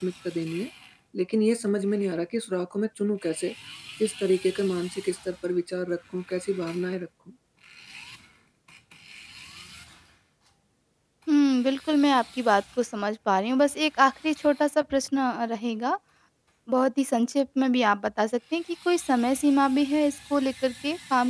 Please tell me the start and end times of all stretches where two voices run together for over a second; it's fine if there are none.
none

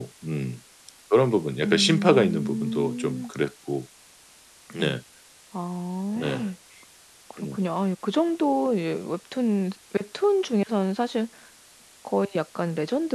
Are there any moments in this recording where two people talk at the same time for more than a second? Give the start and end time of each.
1.6-3.3

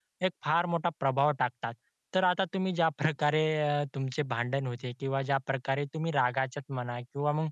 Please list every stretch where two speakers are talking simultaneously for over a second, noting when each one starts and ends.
none

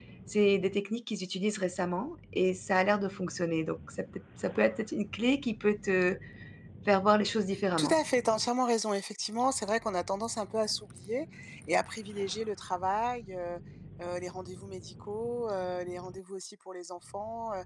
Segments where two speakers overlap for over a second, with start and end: none

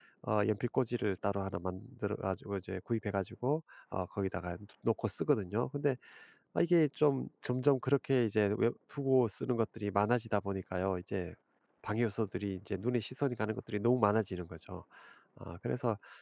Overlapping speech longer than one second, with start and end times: none

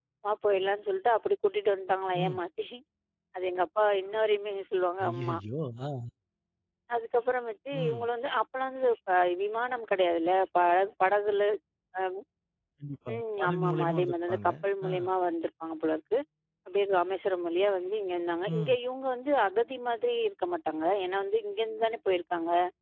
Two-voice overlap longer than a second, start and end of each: 13.1-14.5

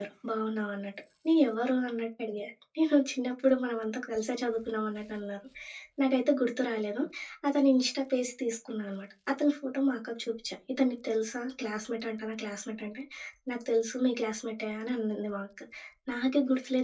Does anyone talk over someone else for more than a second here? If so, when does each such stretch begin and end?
none

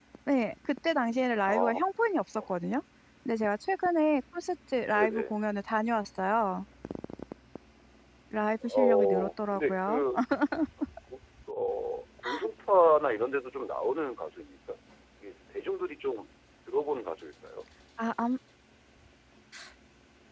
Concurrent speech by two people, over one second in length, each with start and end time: 8.7-10.0

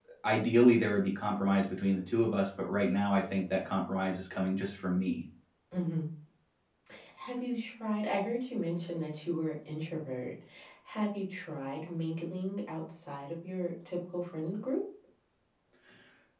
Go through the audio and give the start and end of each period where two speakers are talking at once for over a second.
none

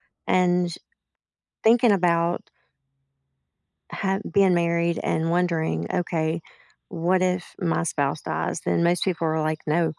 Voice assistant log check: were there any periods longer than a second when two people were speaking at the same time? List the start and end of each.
none

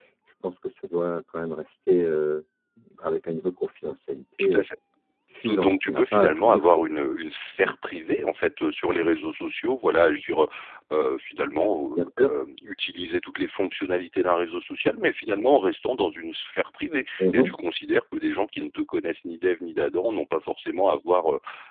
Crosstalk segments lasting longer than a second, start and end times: 5.4-6.8

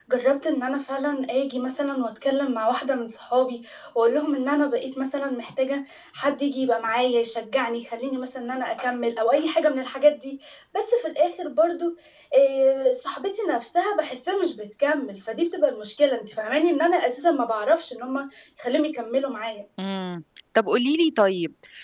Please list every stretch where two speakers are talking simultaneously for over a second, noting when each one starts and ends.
none

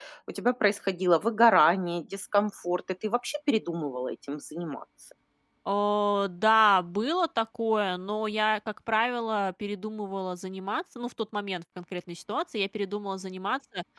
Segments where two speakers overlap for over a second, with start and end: none

